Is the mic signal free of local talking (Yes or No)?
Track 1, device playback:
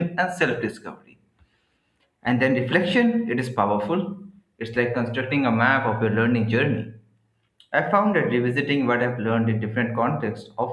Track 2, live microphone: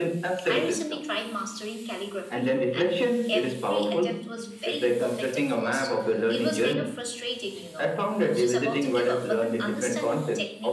No